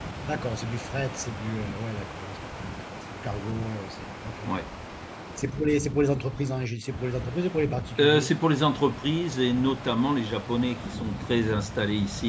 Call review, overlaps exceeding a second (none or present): none